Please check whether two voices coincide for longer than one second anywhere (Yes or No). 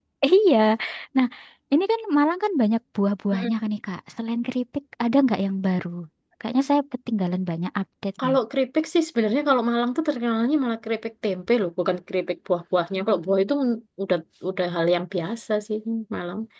No